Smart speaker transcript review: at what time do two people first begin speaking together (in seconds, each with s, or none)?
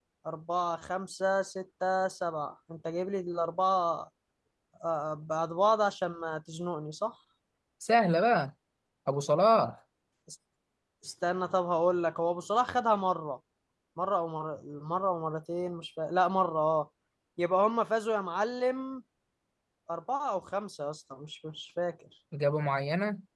none